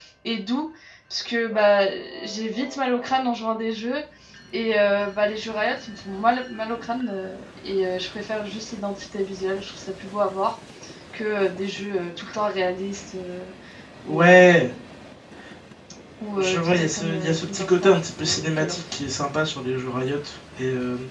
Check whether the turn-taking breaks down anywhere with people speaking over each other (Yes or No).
Yes